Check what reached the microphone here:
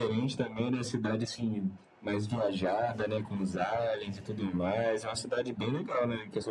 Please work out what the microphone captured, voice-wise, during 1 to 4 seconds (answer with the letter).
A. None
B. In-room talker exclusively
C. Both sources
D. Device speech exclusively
D